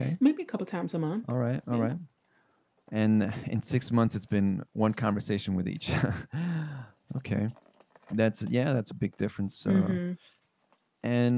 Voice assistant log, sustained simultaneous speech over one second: none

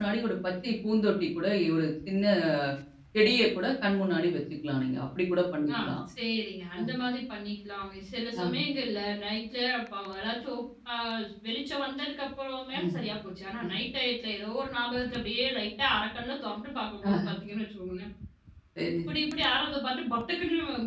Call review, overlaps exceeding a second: none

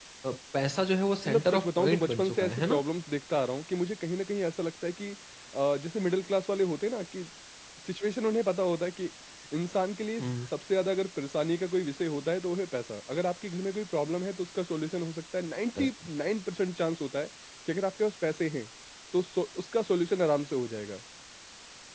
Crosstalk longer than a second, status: present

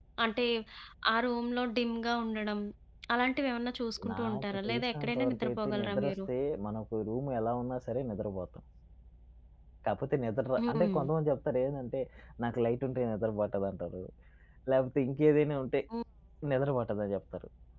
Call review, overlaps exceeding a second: present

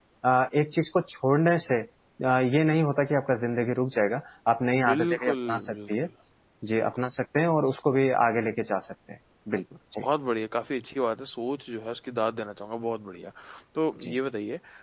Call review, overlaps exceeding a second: present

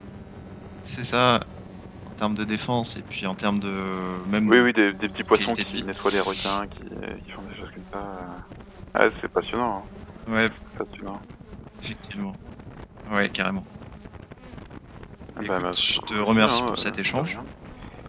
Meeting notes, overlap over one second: present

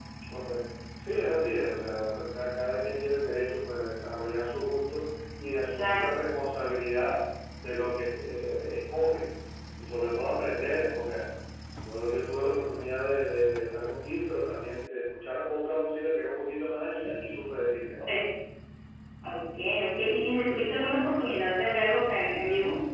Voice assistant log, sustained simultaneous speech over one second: none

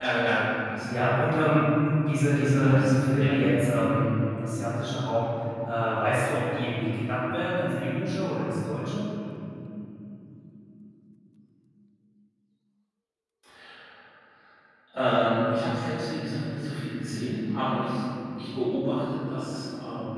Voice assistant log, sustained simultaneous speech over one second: present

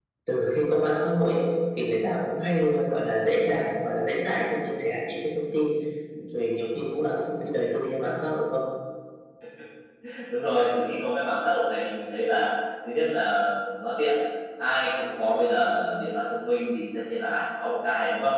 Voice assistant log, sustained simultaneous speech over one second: none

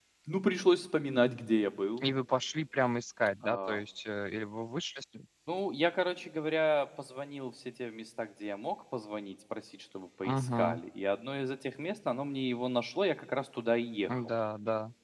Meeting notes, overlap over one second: none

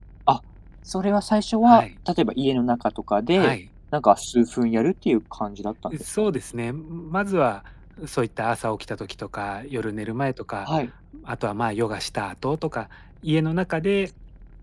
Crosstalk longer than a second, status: none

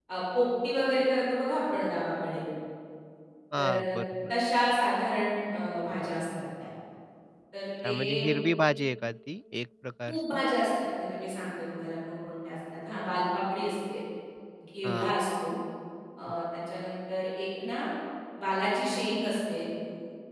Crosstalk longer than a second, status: none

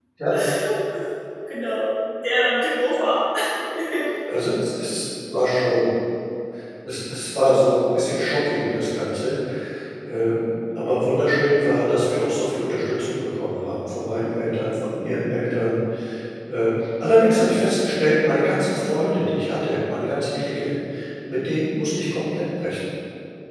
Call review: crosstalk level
none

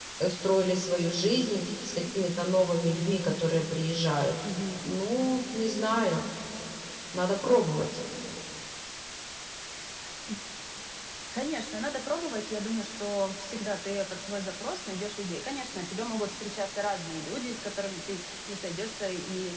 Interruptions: none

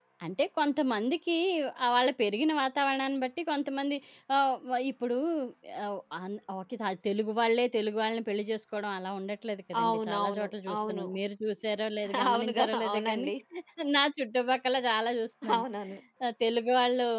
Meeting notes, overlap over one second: present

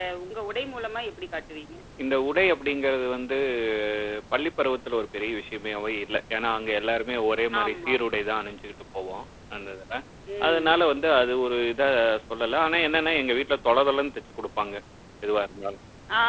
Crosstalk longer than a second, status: none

